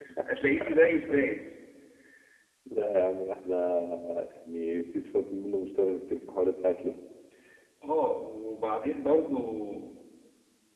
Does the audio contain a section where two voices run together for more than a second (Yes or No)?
No